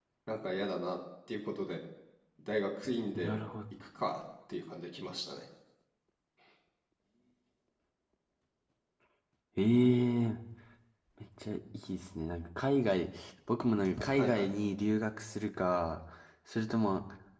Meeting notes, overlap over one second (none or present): none